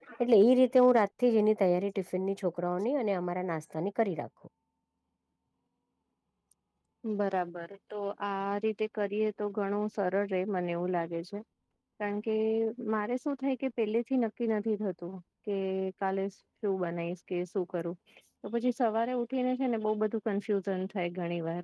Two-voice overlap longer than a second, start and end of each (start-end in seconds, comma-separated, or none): none